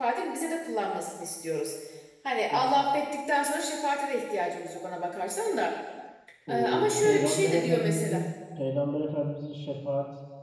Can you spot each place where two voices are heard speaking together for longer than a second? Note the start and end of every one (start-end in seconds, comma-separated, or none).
6.5-8.2